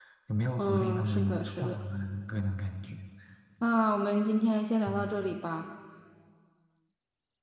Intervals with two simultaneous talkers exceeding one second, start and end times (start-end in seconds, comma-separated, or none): 0.6-1.8